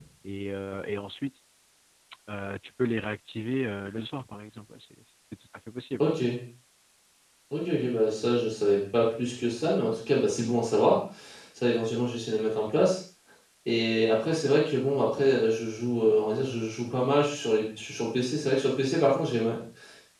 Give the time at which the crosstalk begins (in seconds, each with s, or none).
none